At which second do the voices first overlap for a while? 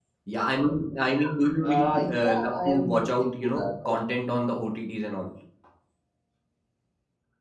1.6 s

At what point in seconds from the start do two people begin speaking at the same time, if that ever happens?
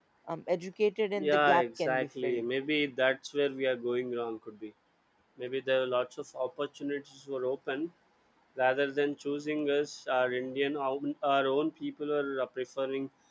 1.2 s

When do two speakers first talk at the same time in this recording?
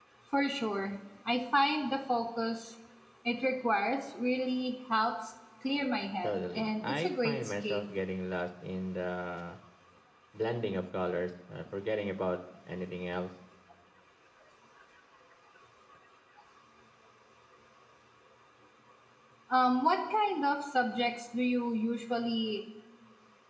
6.2 s

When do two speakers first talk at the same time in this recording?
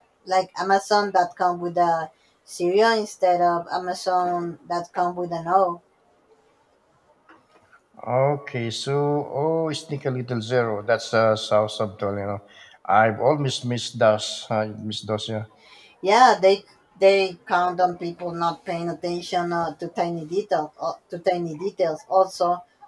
none

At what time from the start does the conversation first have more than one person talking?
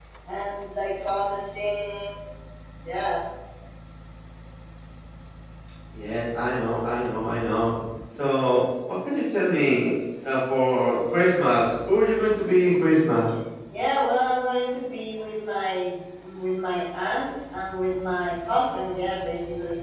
none

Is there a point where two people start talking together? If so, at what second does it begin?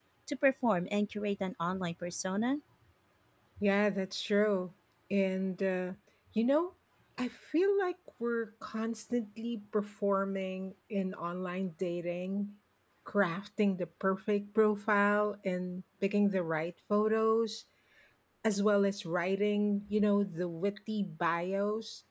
none

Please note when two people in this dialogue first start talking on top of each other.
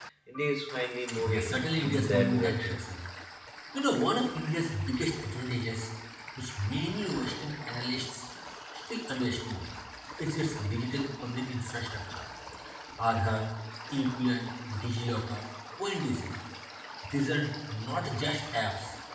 1.2 s

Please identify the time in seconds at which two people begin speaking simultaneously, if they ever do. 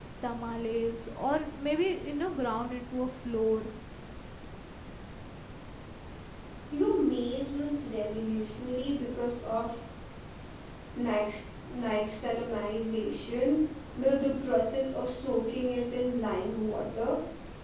none

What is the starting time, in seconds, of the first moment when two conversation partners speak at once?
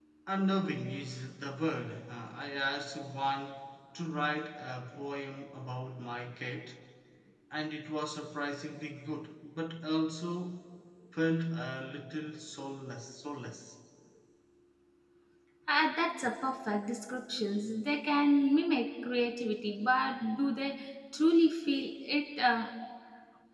none

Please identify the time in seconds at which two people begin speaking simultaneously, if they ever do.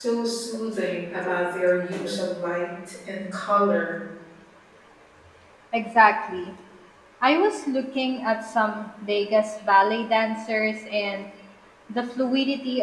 none

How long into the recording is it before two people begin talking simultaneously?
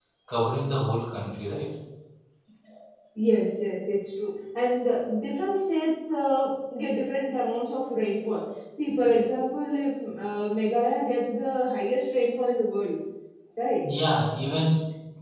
none

